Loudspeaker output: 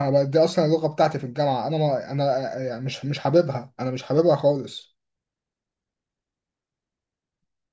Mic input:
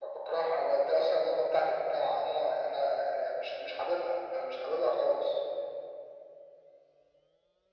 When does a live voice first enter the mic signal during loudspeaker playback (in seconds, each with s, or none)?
none